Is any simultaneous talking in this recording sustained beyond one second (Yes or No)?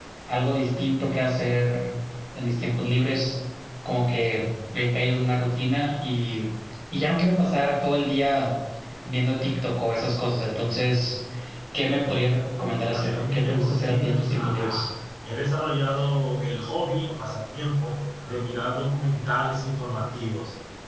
Yes